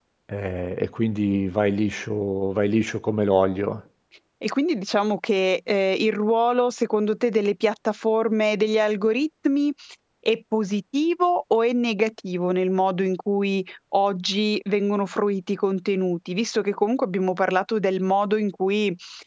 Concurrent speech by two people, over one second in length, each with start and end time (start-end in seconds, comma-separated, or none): none